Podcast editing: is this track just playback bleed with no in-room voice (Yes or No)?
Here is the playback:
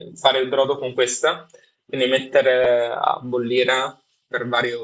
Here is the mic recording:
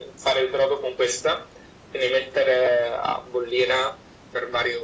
Yes